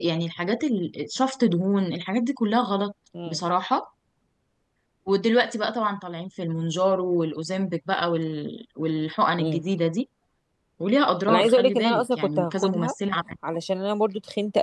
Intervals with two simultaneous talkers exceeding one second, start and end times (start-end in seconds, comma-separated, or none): 11.3-12.9